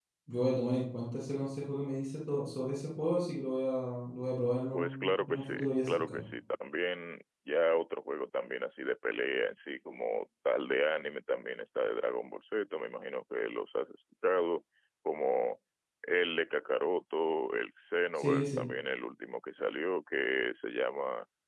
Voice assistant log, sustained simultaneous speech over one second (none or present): present